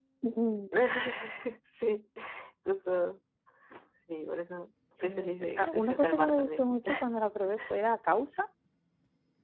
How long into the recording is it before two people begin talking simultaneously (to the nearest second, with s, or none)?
5 s